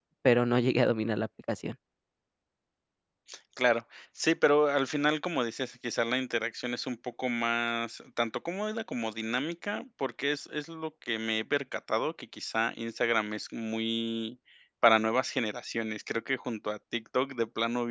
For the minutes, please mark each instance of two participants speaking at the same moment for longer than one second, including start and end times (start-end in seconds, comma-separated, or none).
none